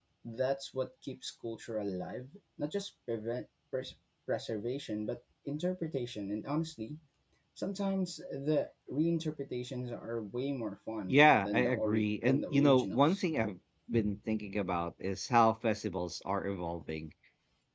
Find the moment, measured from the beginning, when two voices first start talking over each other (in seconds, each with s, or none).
11.1 s